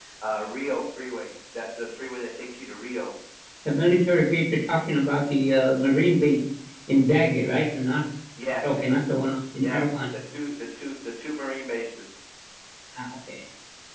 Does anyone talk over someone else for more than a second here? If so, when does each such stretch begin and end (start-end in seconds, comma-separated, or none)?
none